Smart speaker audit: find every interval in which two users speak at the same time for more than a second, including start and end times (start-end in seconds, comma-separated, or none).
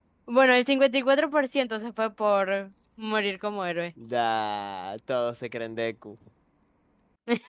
none